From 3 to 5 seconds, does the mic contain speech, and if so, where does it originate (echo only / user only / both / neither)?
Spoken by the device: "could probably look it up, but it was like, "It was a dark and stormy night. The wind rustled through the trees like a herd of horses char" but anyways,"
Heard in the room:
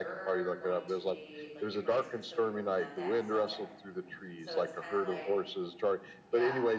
both